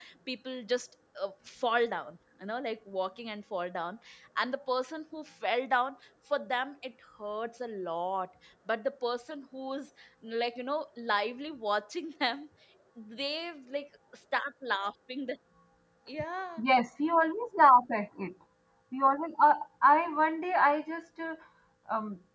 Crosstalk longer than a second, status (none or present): none